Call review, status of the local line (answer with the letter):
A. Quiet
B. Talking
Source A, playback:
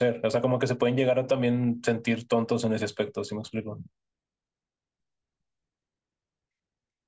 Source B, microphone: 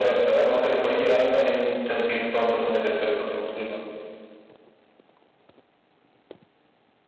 A